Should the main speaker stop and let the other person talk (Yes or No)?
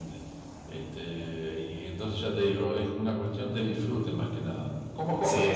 Yes